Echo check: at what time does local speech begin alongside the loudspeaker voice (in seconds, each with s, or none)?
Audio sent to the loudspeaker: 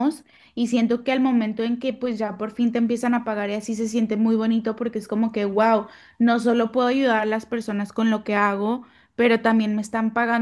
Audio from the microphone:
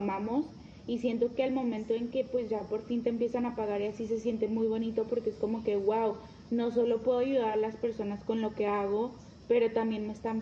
none